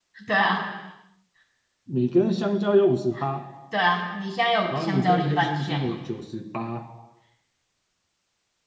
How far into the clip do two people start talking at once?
4.7 s

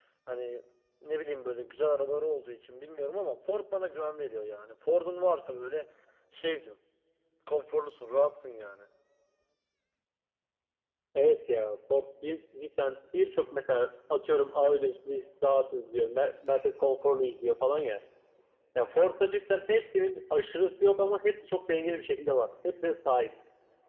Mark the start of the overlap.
none

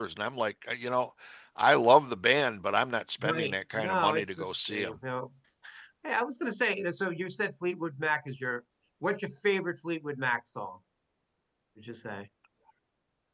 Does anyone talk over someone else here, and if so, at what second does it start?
3.2 s

